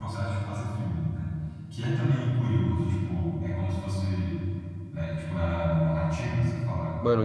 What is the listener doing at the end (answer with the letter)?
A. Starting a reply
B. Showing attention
A